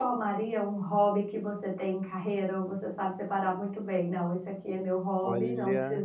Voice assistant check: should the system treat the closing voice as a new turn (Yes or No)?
No